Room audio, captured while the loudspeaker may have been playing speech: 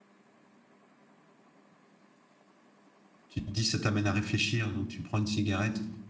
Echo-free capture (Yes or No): Yes